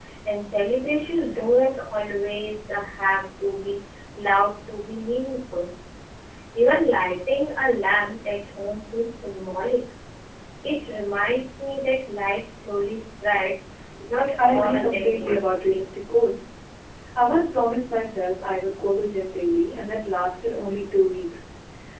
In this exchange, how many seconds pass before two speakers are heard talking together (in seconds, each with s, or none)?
14.4 s